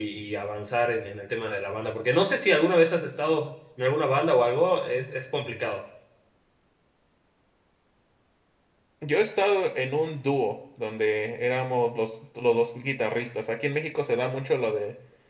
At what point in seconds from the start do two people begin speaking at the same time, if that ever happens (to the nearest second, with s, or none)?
none